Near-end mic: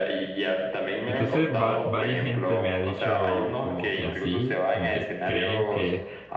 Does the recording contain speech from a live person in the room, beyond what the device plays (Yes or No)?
Yes